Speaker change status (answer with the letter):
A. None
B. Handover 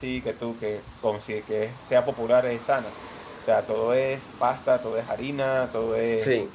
A